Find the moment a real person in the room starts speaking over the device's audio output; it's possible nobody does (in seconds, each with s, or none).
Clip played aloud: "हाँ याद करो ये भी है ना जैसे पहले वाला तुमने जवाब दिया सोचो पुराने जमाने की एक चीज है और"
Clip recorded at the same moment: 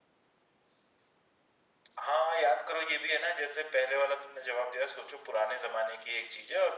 none